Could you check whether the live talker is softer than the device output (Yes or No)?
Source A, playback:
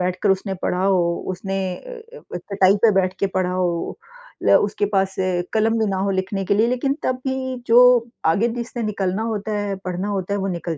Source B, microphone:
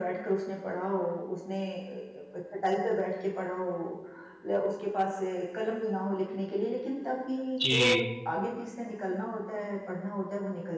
No